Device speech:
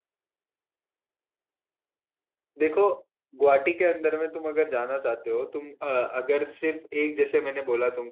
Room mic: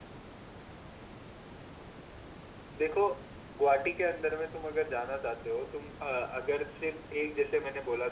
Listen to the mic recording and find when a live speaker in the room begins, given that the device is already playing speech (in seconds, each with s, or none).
none